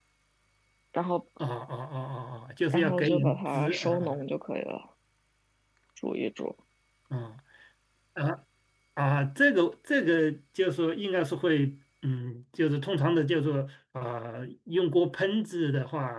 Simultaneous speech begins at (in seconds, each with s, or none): 2.7 s